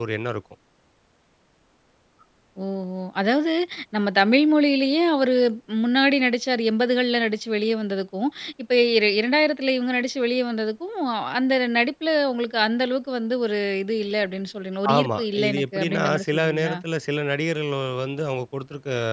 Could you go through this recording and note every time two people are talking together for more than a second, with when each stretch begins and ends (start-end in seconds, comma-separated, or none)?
15.0-16.8